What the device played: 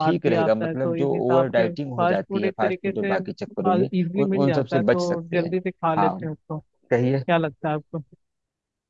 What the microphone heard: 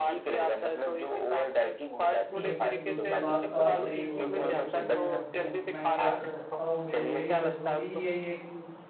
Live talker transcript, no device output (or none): बिल्कुल बिल्कुल बात तो आप सही बोल रहे हो लेकिन अ, मैं क्या कर सकता हूँ मुझे मेरी मजबूरी यही है कि